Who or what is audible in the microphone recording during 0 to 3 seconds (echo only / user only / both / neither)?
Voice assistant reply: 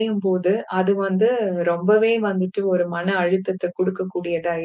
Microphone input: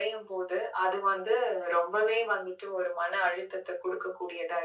echo only